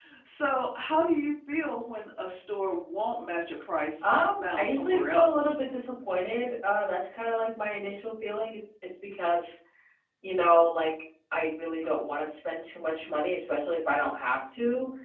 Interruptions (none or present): present